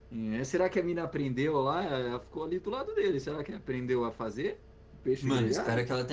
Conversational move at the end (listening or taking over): taking over